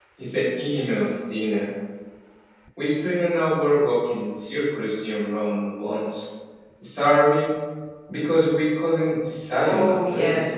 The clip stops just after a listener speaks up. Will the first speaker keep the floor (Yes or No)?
No